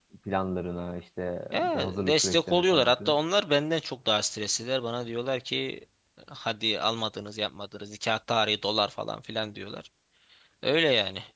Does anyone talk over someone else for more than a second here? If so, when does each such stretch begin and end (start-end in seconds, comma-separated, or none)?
1.5-3.1